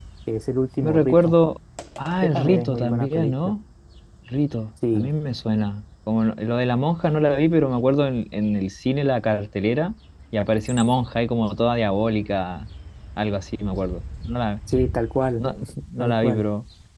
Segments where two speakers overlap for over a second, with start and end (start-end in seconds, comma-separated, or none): 2.2-3.5